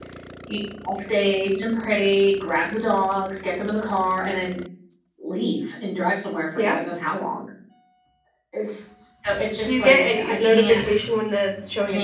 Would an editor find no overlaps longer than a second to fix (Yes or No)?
No